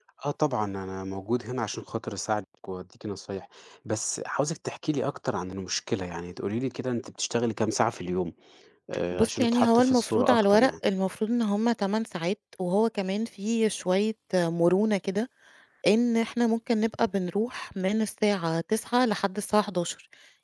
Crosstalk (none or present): present